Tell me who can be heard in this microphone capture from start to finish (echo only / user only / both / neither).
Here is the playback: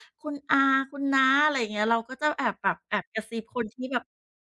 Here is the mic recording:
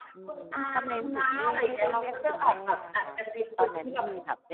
both